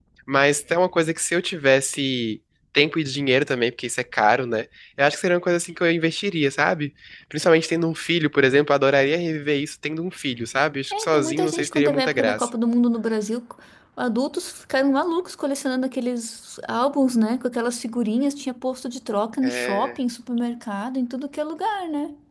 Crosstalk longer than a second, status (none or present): present